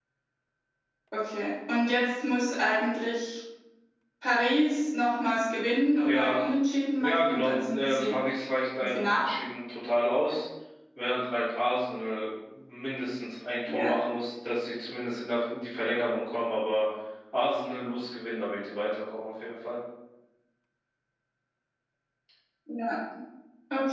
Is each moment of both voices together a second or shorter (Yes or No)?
No